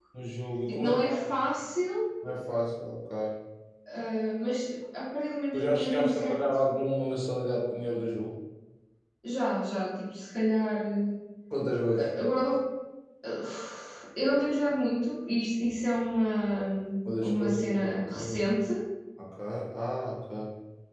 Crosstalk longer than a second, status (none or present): present